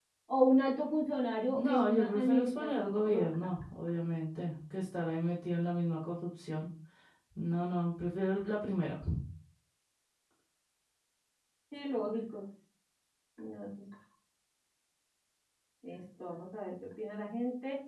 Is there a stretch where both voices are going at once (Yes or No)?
Yes